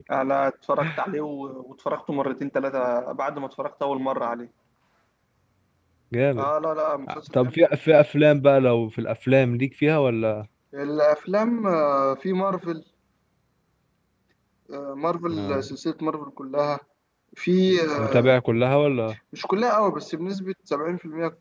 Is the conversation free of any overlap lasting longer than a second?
Yes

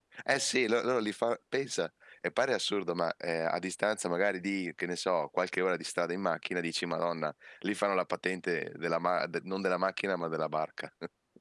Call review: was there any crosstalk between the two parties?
No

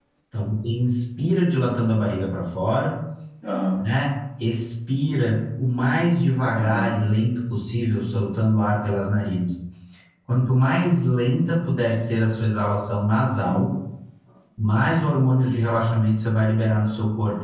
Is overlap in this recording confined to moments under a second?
Yes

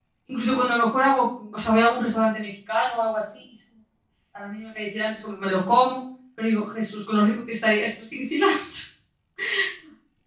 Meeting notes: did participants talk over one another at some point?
No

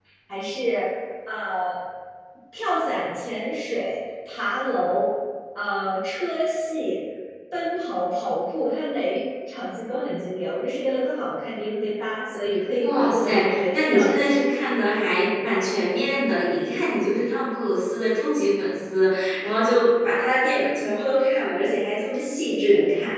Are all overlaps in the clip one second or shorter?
No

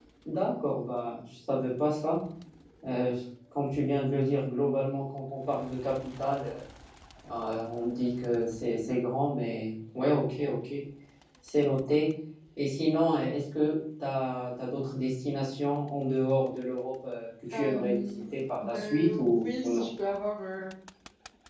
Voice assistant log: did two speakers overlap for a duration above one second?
Yes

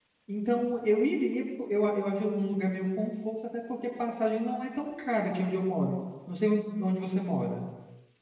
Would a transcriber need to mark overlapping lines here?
No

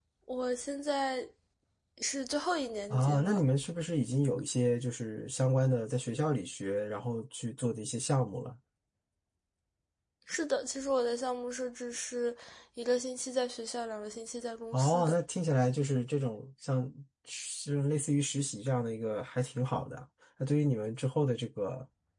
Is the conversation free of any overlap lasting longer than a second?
Yes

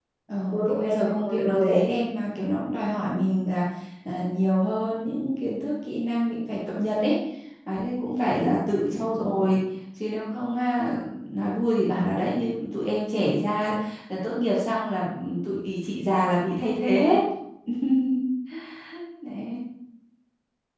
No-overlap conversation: No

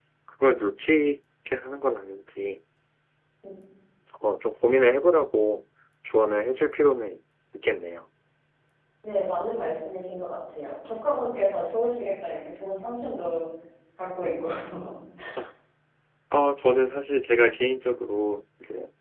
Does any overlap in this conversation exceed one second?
No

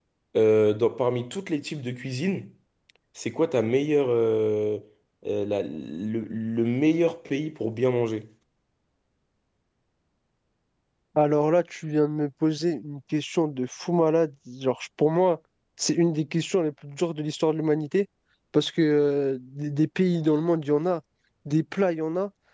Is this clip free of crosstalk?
Yes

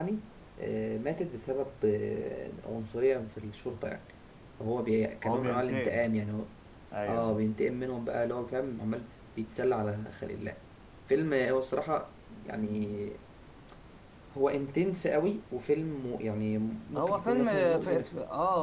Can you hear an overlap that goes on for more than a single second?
Yes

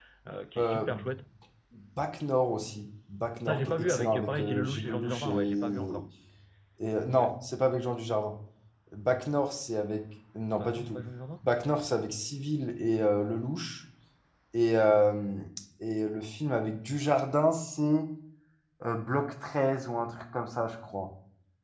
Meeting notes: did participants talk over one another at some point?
Yes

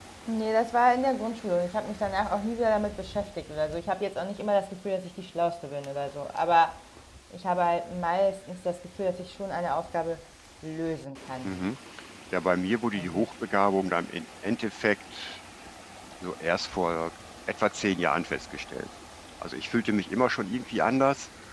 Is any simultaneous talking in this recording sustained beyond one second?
No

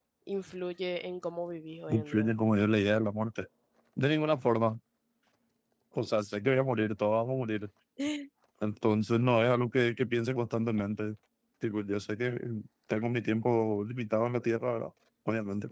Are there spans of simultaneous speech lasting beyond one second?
No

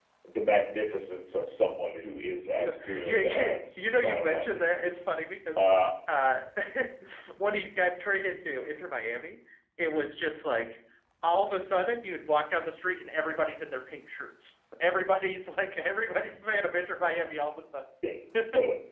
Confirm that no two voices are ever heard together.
No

